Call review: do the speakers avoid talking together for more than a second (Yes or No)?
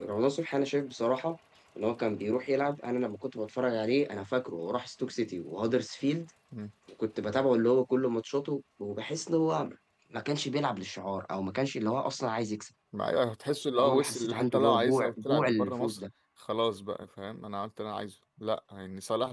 No